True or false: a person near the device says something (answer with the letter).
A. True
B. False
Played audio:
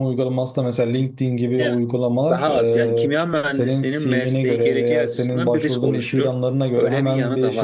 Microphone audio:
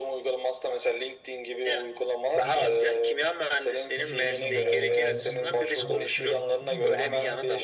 A